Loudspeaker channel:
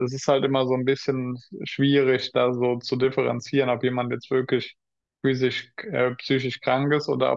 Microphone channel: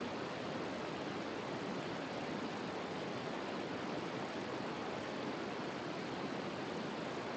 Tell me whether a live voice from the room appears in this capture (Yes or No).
No